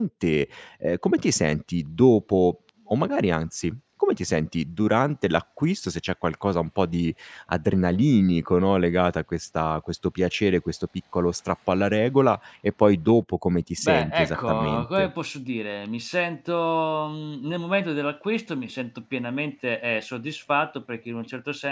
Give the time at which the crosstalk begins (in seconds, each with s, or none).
13.8 s